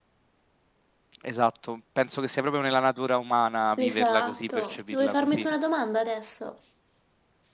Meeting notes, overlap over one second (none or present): present